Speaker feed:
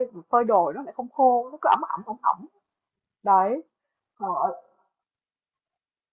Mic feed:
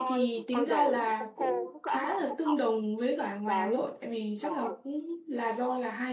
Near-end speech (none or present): present